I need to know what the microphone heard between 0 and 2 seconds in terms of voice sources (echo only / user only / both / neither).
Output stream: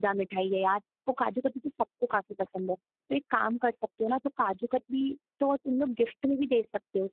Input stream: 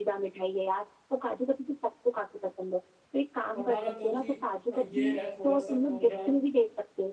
echo only